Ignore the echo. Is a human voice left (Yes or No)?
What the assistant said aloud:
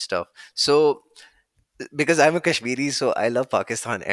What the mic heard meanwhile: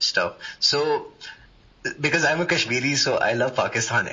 No